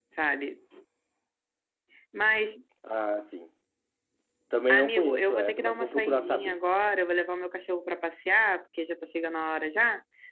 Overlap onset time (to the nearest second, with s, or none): 5 s